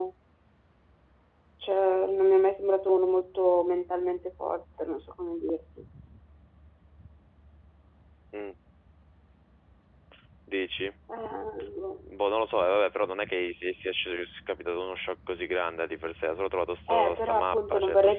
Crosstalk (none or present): present